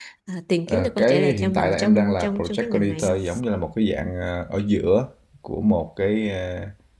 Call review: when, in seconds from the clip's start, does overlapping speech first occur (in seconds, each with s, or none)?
0.7 s